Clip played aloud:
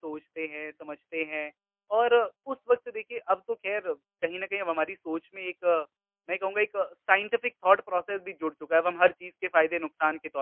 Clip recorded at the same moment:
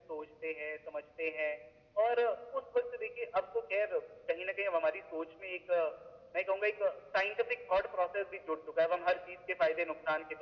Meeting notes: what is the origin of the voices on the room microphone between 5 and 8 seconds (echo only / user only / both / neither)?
echo only